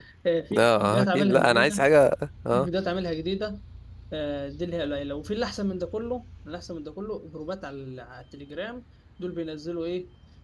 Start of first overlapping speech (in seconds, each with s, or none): 0.6 s